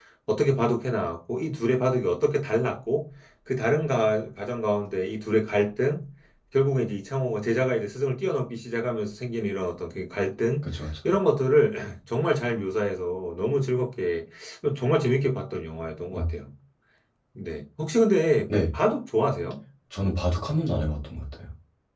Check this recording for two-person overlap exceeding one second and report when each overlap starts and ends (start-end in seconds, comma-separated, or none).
none